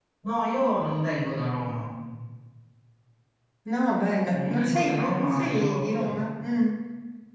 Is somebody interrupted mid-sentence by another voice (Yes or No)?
Yes